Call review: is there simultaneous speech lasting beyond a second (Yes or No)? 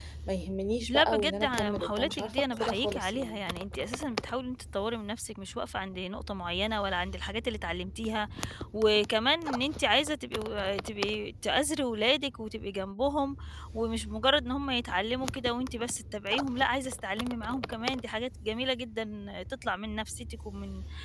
Yes